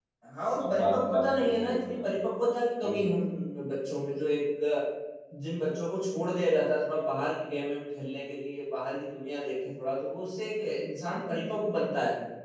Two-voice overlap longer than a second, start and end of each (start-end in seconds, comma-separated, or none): 0.7-2.1